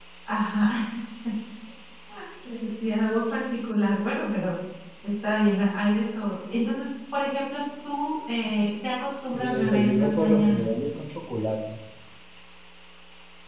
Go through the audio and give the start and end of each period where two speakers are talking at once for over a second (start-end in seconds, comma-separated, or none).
9.3-10.7